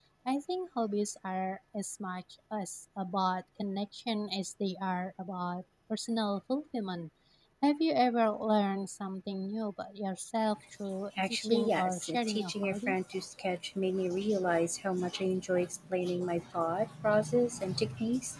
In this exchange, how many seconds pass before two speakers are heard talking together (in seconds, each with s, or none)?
11.2 s